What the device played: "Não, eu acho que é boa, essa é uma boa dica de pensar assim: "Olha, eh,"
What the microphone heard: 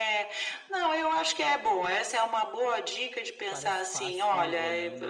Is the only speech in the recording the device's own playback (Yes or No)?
No